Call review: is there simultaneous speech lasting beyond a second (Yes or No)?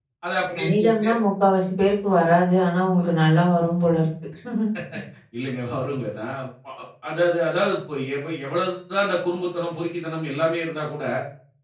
No